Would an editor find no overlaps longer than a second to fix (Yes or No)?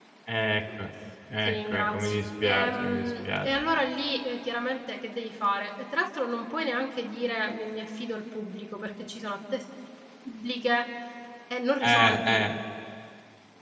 No